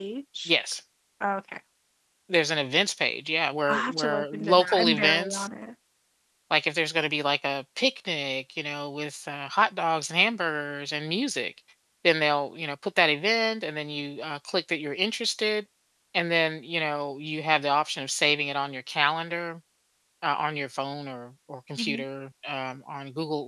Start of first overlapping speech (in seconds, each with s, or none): 3.7 s